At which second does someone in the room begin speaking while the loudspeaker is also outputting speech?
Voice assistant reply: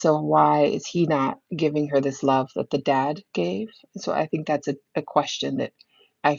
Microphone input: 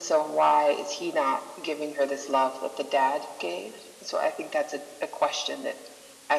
none

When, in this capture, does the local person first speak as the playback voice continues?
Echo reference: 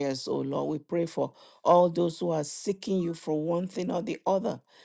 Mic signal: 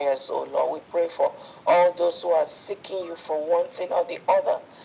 none

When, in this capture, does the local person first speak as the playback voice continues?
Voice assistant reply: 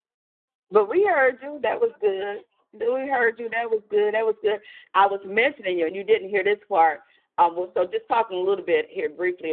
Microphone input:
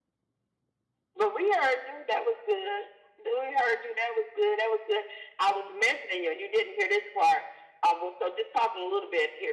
none

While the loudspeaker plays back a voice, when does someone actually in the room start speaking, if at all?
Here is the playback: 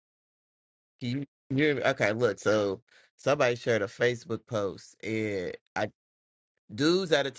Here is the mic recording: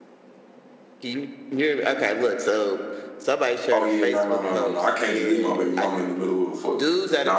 4 s

